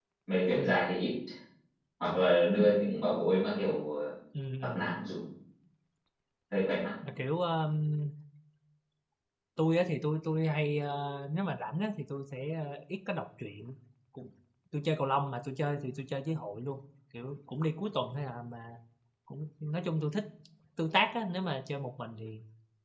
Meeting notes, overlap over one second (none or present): none